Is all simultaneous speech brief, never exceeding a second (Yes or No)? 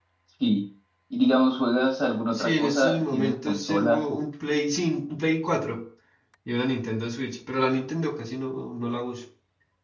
No